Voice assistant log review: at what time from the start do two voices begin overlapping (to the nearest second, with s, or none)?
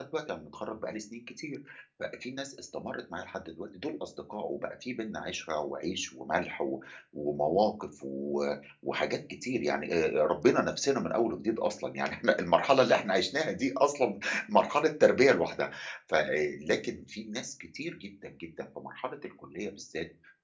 none